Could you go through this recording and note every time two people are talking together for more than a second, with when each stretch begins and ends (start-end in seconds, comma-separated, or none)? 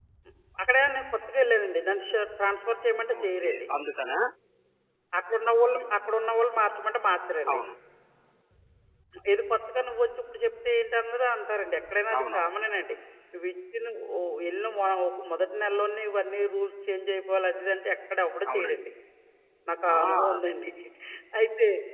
none